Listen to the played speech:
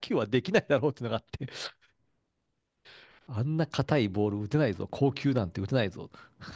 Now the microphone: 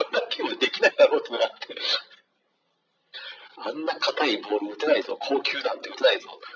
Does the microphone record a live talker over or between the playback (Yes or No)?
No